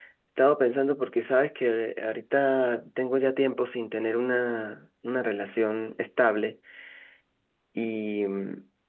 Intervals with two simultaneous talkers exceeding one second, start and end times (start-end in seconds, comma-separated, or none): none